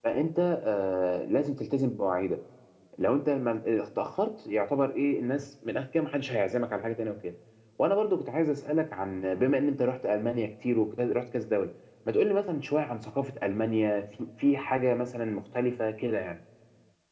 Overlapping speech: No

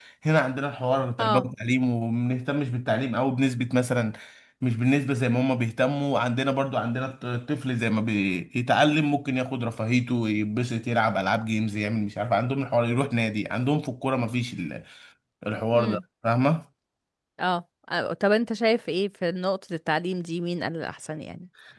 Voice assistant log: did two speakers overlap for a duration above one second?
No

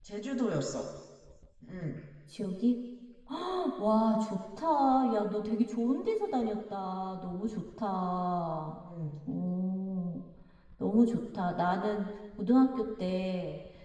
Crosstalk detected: No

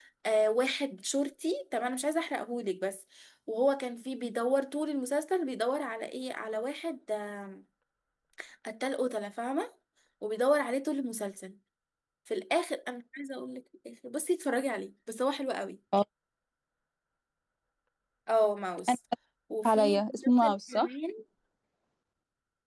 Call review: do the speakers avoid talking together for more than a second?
No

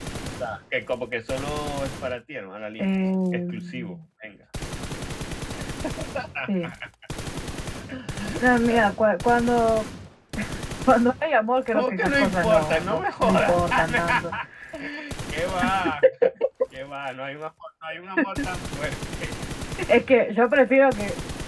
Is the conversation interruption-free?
No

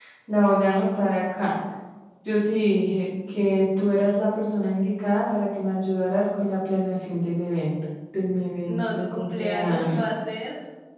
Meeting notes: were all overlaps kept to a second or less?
No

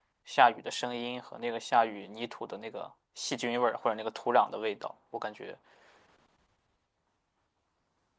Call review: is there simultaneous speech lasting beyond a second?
No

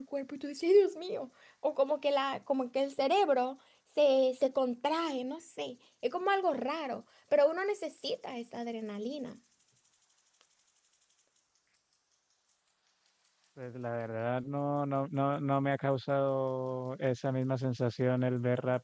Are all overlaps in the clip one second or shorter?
Yes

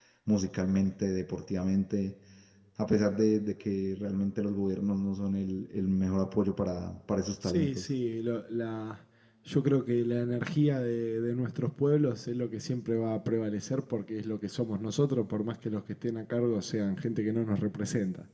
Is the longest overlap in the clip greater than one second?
No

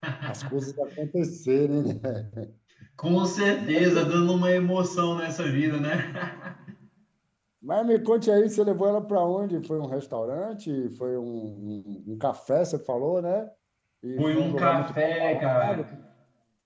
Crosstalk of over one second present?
Yes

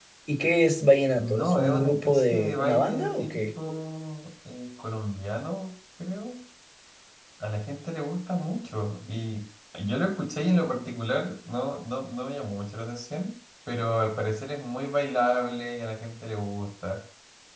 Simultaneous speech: Yes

